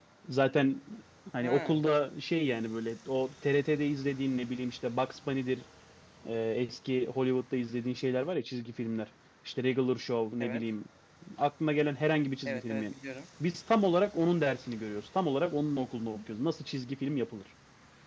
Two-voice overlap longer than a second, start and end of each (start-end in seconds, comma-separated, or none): none